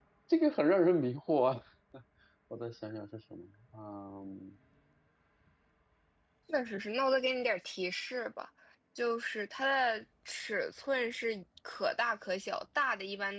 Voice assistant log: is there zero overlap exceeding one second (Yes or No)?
Yes